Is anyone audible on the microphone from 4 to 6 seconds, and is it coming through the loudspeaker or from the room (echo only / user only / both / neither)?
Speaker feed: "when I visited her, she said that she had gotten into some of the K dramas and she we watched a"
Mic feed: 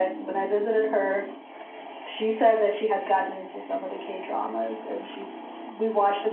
echo only